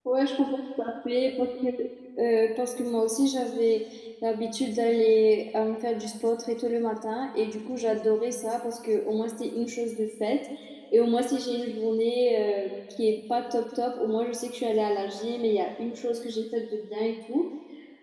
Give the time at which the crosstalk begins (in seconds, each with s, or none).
none